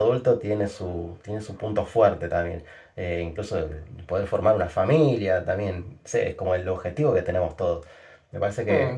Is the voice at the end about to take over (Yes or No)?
No